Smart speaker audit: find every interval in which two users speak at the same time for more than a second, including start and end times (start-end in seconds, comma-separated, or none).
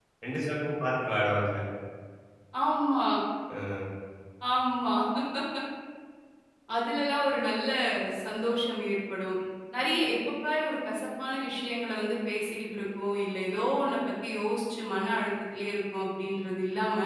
none